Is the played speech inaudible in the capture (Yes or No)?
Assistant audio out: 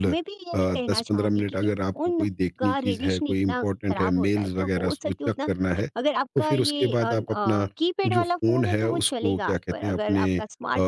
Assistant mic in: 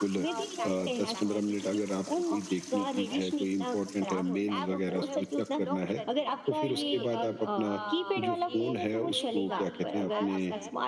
No